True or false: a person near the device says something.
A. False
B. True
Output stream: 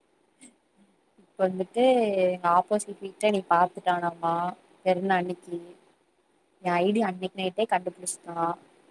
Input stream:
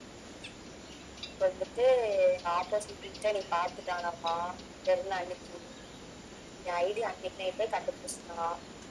A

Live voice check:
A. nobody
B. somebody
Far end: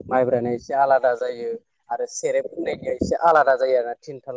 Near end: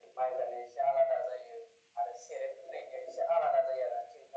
A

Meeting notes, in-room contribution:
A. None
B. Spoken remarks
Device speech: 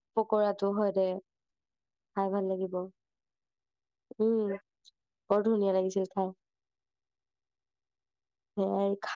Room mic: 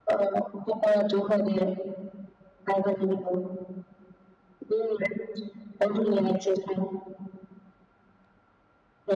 A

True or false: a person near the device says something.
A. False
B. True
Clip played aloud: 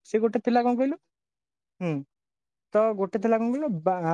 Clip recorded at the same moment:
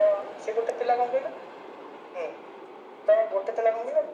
A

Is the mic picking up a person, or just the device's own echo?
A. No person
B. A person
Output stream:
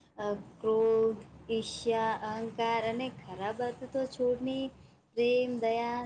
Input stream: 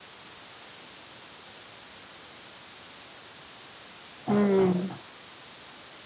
B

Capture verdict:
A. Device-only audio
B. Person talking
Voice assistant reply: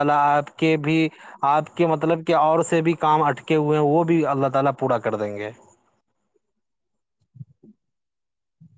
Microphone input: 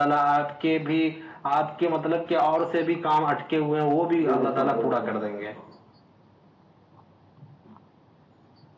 B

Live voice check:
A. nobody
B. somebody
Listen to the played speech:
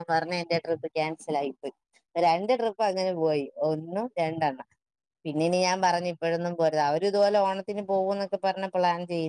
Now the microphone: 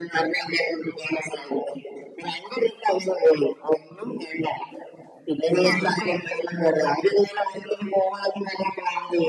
B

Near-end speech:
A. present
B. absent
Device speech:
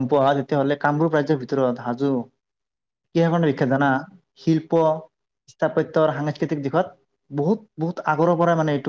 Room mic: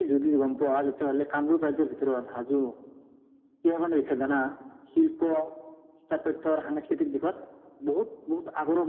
B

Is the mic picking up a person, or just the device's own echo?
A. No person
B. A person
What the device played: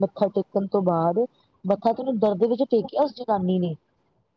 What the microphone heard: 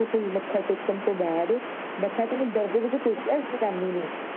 A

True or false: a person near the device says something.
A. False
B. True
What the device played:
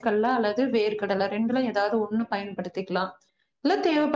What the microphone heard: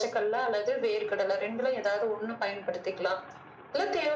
A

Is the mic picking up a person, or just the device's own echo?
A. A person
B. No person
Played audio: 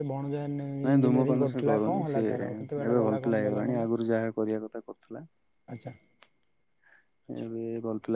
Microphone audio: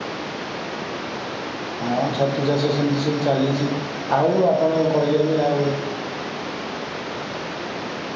A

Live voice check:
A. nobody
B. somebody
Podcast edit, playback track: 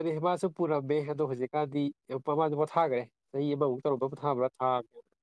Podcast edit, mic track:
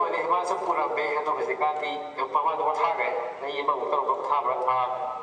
A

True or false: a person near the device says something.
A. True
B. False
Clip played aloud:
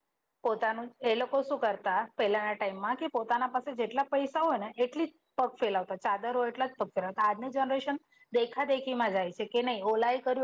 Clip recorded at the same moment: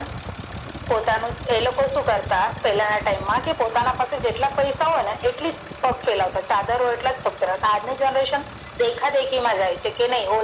B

